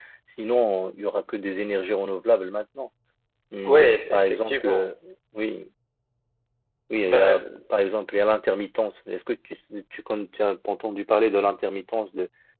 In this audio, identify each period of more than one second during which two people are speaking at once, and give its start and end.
3.7-4.9

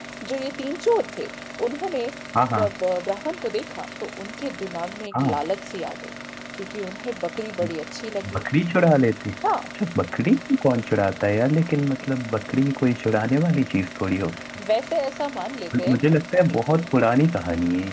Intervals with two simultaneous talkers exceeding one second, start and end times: none

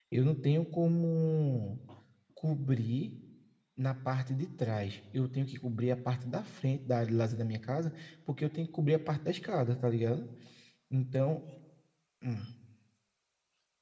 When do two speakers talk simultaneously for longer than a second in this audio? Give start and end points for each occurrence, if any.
none

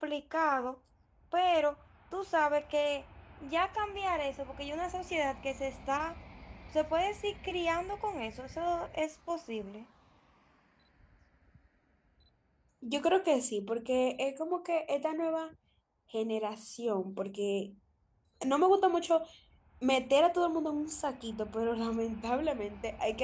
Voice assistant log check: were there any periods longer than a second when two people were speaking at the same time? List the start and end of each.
none

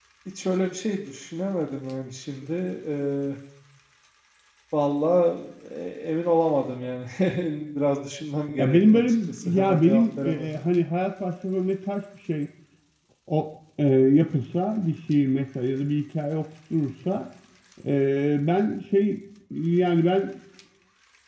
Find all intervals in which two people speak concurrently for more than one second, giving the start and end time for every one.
8.6-10.5

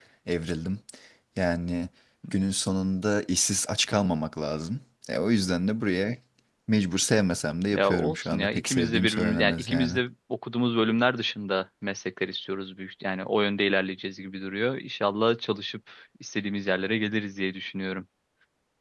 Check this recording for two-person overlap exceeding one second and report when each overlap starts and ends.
7.7-9.9

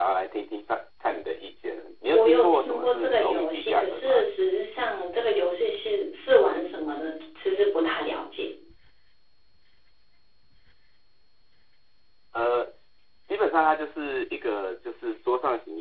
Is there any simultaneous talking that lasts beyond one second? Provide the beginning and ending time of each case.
2.1-4.2

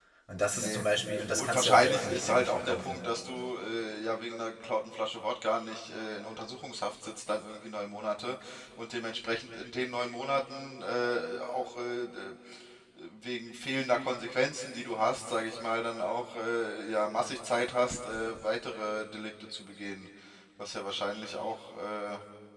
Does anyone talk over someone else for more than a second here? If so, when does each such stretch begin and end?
1.4-3.0

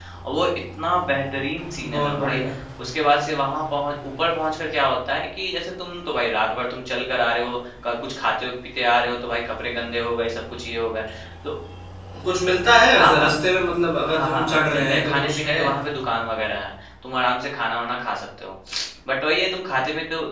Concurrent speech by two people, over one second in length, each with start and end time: 14.1-15.6

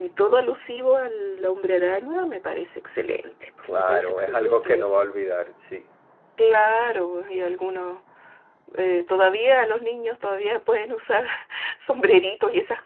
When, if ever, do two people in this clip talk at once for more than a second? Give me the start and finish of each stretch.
3.7-4.9

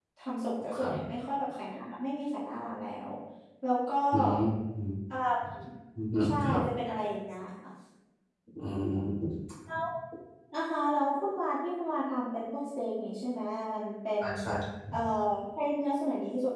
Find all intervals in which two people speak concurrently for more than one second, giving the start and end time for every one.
none

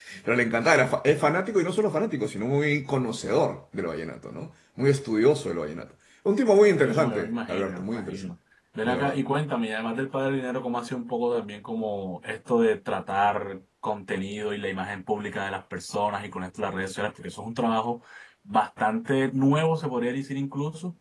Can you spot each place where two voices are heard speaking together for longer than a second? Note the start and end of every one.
6.8-8.3

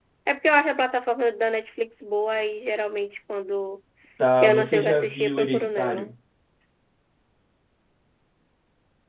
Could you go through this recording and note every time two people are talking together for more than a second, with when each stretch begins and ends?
4.4-6.1

